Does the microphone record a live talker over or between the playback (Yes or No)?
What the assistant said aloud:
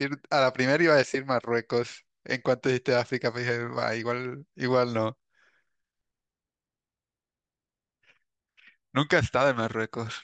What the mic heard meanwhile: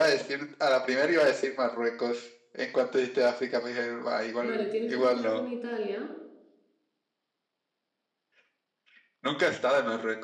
Yes